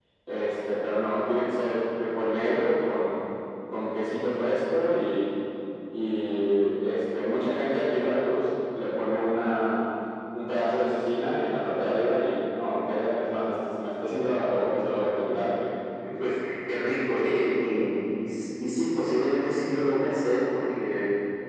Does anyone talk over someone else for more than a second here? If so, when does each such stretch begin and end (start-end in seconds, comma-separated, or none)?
none